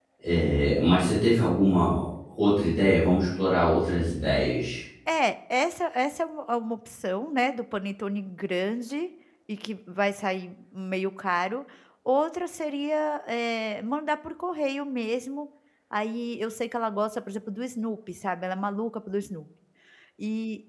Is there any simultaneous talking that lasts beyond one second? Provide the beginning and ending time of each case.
none

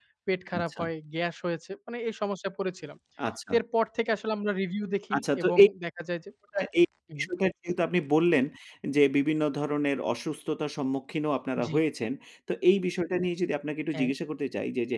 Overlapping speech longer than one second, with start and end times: none

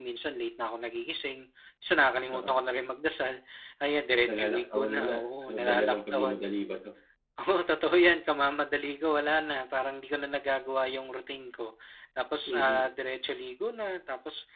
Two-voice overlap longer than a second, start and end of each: 4.3-6.5

